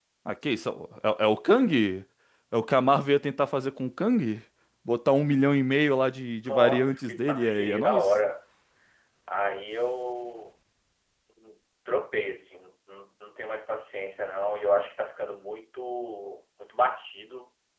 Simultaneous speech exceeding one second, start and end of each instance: 6.4-8.1

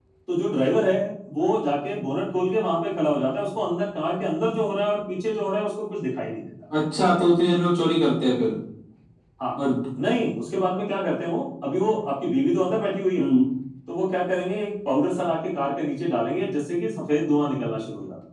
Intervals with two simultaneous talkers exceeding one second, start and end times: none

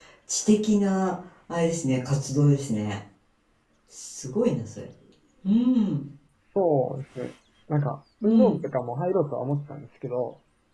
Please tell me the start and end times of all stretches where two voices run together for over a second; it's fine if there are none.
none

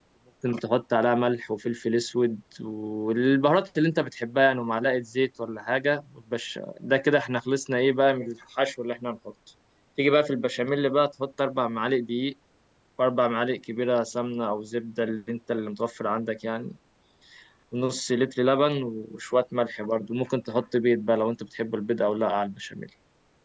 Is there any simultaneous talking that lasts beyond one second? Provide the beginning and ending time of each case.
none

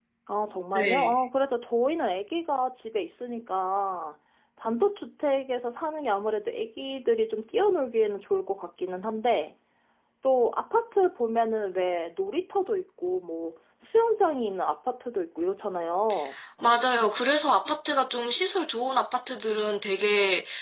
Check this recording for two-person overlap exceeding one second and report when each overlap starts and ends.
none

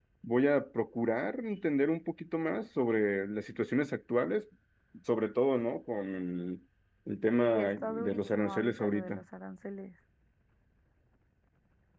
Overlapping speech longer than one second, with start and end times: 7.3-9.2

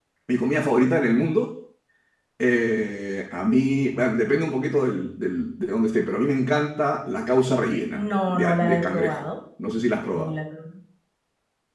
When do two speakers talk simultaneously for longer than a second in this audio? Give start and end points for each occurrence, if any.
8.0-9.3

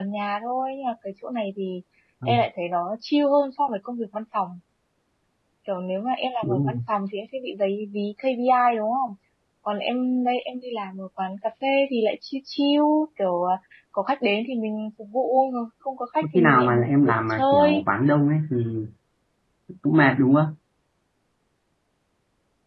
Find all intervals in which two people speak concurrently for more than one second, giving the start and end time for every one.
16.2-17.8

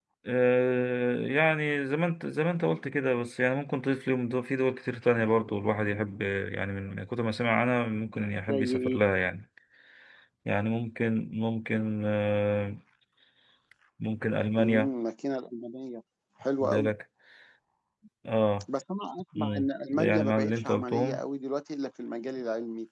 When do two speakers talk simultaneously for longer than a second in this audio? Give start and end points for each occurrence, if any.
19.4-21.2

